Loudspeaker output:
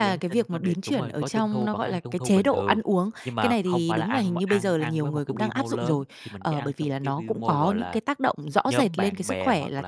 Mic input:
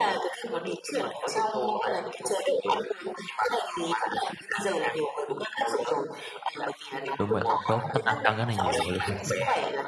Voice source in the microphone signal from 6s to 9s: both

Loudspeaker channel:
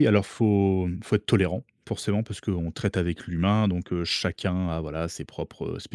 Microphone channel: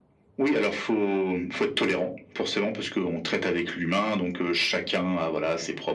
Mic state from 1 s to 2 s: echo only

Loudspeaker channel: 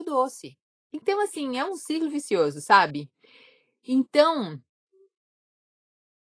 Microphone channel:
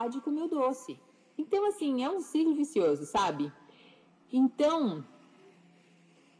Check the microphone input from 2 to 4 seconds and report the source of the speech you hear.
echo only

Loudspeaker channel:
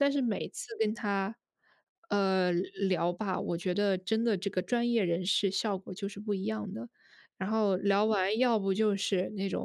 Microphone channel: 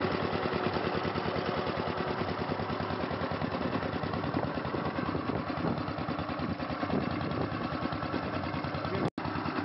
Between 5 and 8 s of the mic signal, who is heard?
neither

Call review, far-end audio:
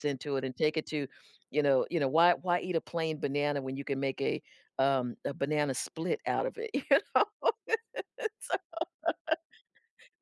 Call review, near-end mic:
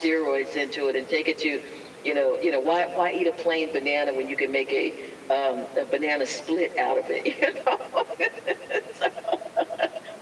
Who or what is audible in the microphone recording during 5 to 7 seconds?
echo only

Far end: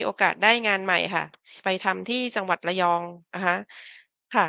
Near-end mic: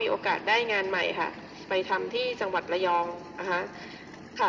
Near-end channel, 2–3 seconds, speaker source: echo only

